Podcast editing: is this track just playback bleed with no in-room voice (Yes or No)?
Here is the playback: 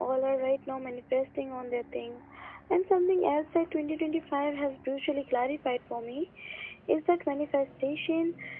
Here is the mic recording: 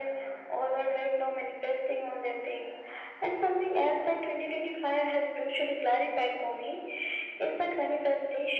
Yes